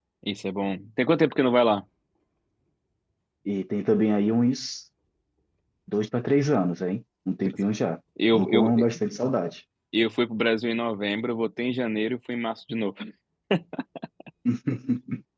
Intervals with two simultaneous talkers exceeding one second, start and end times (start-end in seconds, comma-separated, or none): none